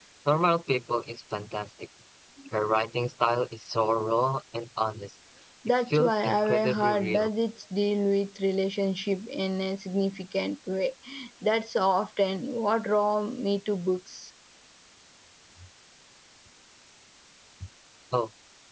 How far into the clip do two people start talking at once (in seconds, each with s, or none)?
5.9 s